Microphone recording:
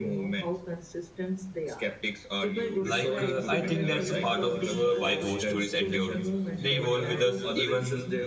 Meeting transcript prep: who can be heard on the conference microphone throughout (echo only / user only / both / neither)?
both